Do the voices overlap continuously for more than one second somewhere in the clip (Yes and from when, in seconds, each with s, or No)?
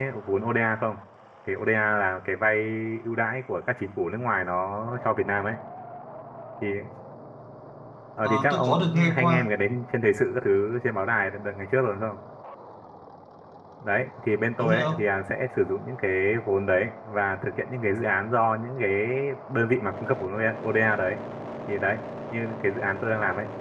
Yes, from 8.2 s